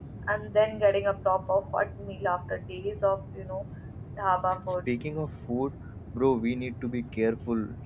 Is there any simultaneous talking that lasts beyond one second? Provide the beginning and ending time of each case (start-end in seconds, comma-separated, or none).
none